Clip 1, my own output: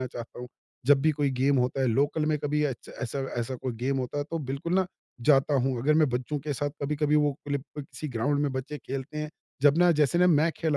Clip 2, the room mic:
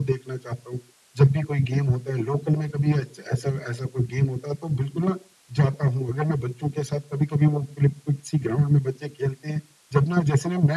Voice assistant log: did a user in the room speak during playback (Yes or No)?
No